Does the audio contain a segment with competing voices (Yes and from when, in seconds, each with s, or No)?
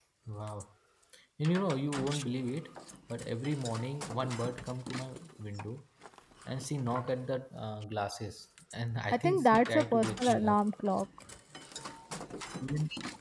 Yes, from 9.1 s